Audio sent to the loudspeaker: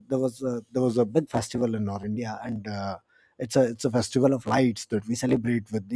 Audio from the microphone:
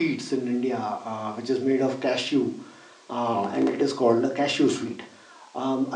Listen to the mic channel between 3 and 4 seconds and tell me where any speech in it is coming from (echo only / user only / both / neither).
user only